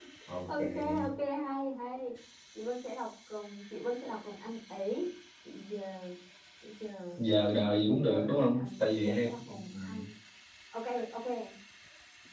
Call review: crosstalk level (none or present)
present